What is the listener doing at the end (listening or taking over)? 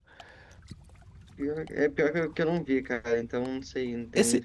taking over